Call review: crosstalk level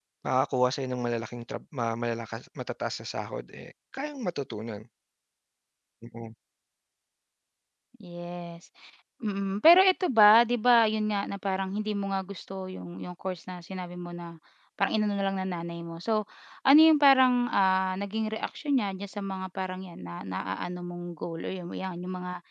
none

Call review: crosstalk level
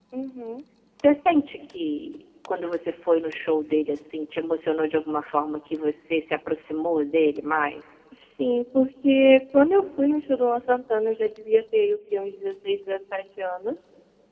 none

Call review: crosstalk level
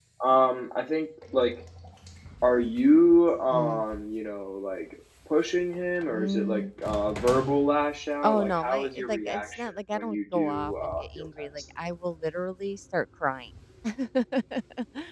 present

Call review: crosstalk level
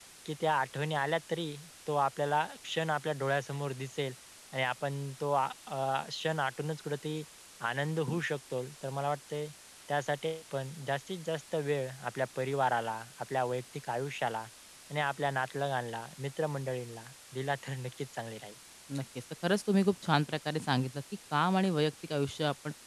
none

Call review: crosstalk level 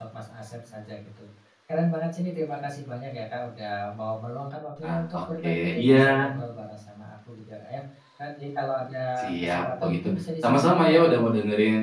present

